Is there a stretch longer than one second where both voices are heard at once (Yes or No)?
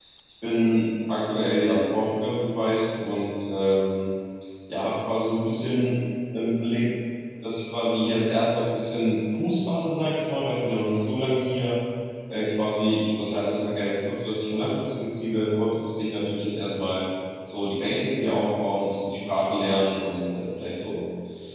No